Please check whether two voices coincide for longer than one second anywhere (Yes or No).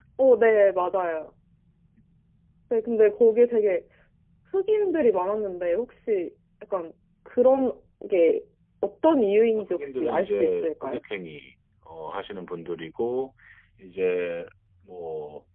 Yes